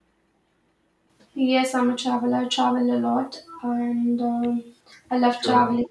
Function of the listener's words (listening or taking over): listening